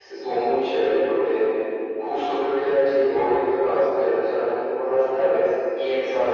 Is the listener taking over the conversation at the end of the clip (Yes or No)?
No